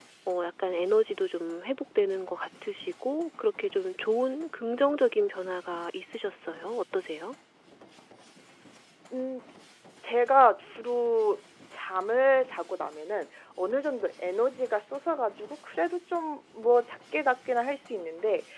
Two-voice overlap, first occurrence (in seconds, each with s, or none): none